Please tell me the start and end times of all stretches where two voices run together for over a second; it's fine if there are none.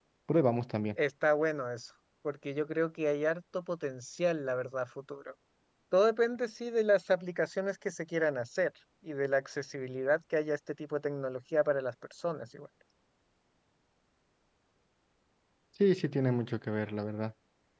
none

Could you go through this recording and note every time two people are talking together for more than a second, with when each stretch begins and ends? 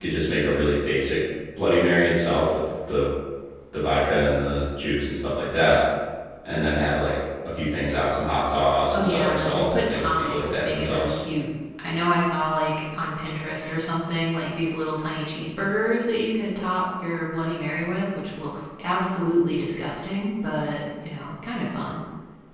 8.9-11.1

